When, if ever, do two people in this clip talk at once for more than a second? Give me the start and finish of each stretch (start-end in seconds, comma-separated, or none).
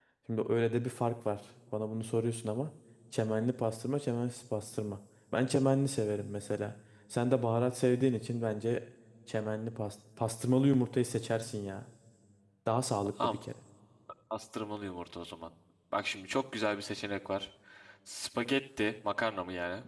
none